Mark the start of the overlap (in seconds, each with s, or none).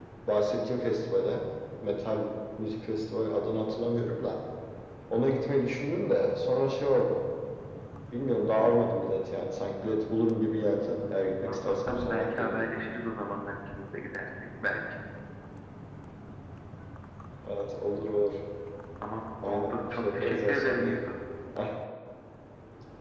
10.9 s